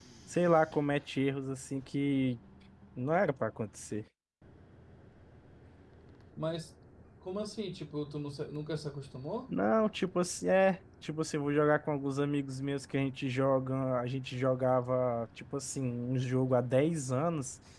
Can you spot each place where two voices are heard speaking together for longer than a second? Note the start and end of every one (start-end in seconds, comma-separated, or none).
none